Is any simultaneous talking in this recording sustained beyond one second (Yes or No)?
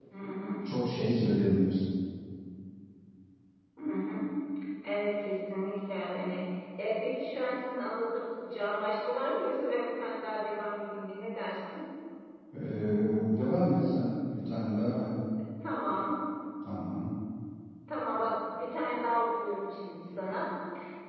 No